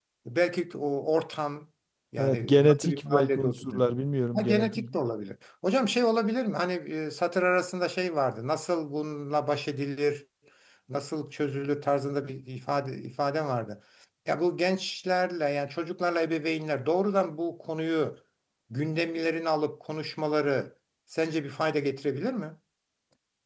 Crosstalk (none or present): present